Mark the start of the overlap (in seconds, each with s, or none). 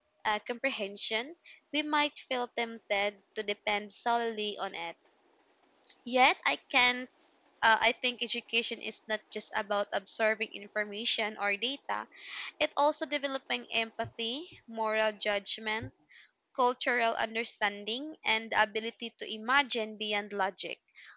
none